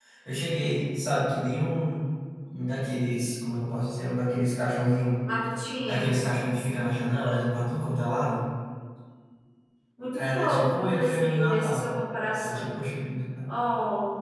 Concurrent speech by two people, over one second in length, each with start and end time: 10.2-11.8

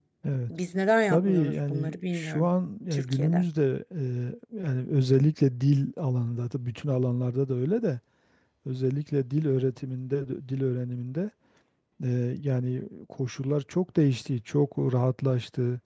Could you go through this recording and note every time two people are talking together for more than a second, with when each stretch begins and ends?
1.1-2.5

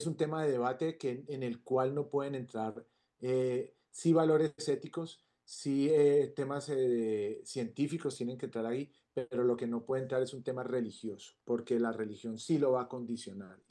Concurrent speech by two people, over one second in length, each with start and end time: none

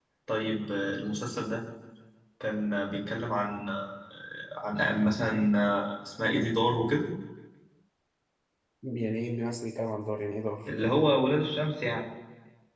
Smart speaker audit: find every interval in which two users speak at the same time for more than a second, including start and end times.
none

